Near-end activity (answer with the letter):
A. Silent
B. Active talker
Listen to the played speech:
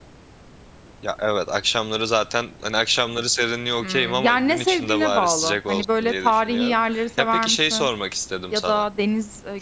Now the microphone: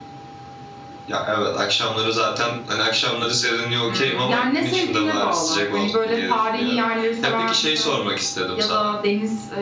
A